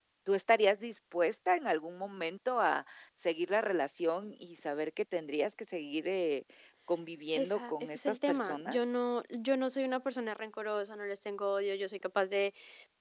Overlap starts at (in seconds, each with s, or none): 7.3 s